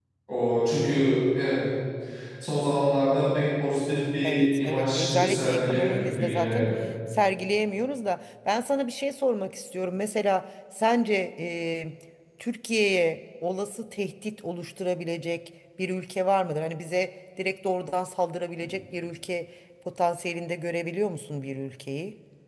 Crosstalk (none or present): present